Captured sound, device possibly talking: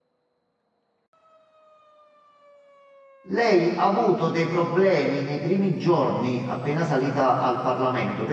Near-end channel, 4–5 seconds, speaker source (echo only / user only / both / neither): user only